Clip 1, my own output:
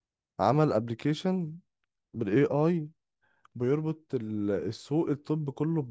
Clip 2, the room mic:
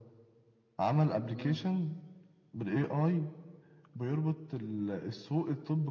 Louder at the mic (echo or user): echo